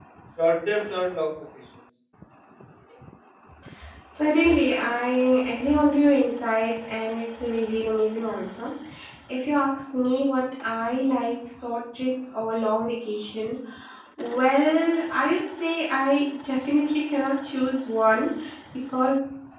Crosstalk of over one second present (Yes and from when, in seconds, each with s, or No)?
No